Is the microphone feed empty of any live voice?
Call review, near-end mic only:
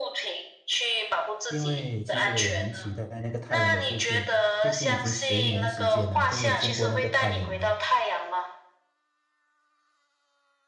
No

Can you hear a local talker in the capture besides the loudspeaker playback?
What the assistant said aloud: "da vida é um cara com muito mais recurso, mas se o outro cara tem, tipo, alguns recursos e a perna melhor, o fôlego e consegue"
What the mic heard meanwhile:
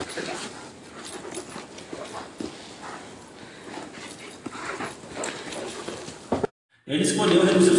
Yes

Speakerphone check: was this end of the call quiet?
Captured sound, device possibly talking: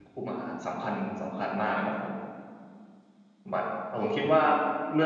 No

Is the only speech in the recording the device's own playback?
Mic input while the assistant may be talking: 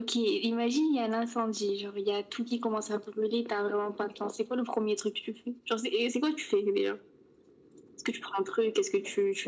Yes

